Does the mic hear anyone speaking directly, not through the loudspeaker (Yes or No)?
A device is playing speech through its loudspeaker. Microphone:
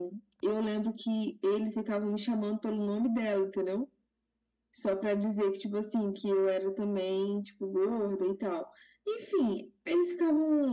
No